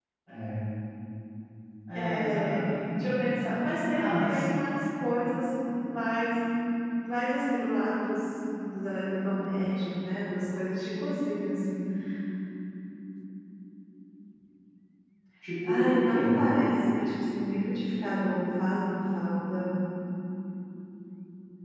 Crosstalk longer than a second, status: present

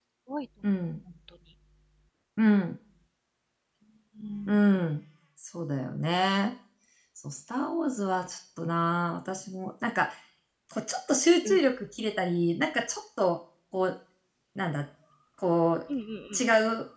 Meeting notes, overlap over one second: none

